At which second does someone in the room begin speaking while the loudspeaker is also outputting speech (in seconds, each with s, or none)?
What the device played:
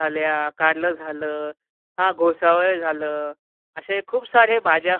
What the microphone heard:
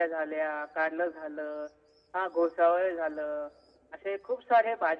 none